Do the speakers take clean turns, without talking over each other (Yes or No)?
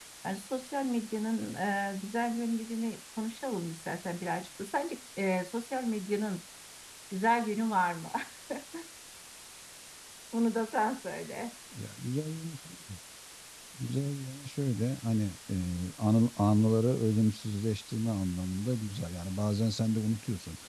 Yes